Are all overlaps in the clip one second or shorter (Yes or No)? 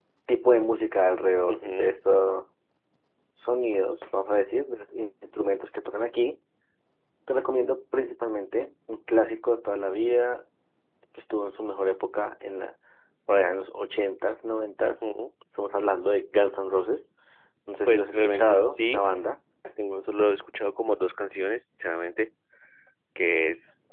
No